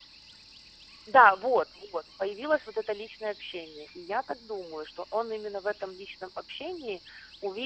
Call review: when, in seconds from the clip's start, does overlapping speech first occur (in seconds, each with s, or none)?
none